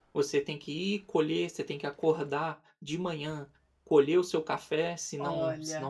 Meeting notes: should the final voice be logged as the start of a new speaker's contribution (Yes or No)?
No